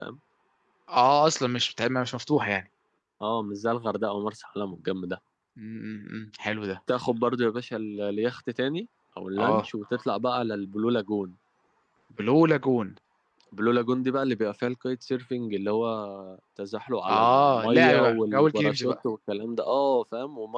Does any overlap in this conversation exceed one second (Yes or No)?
Yes